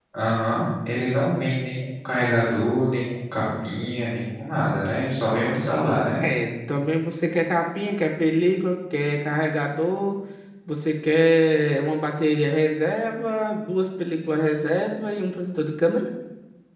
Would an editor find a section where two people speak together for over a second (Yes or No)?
No